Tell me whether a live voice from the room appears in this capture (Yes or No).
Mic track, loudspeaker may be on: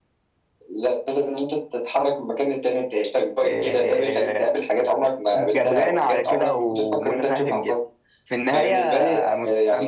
Yes